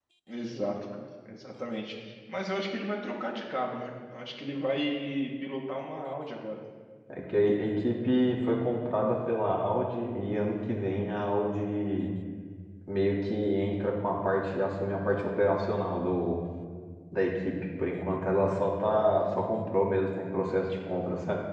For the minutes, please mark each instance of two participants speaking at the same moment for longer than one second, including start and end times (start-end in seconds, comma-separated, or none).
none